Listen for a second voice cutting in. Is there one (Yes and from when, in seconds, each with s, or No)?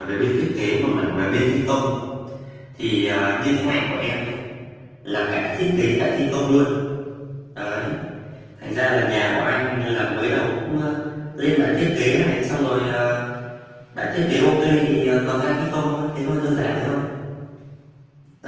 No